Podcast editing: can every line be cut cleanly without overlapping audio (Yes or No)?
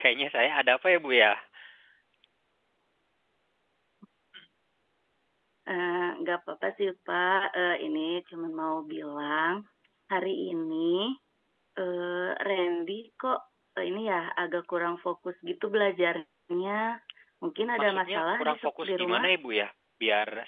No